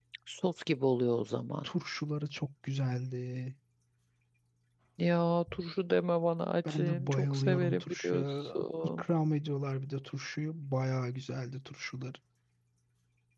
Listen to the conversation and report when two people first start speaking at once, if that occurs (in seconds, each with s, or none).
6.6 s